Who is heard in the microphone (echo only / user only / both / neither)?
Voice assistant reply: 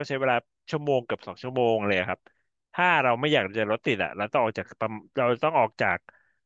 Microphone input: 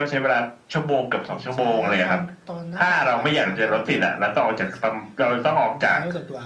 both